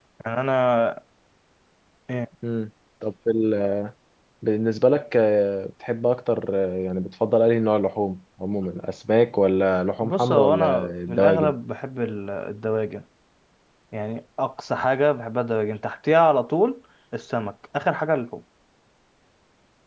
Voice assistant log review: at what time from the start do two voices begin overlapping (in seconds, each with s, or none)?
10.0 s